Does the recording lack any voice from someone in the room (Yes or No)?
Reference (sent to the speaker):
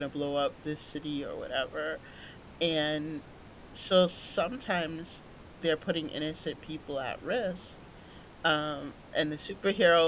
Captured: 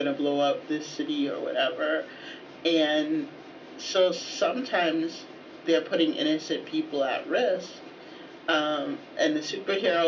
Yes